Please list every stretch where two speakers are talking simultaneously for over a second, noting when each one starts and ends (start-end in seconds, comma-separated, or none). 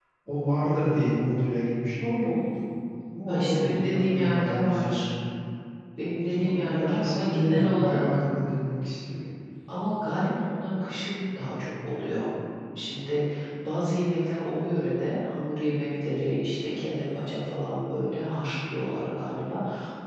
3.3-5.1, 6.3-8.0